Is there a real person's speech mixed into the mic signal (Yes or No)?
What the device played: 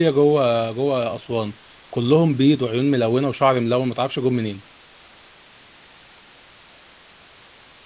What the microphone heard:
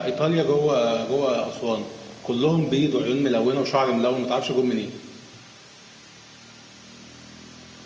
No